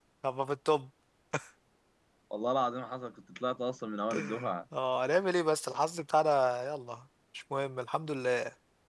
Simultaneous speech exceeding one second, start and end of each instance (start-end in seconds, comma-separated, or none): none